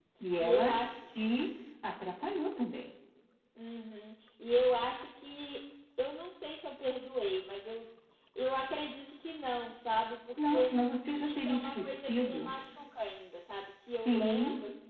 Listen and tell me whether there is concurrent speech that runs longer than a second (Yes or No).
Yes